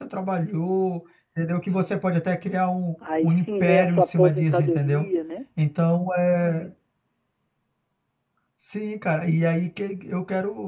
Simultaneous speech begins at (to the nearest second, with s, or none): 3 s